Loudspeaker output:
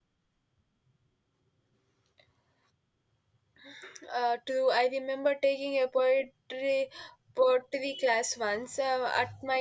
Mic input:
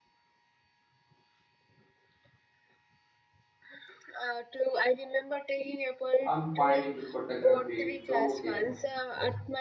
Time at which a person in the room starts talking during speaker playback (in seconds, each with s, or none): 6.2 s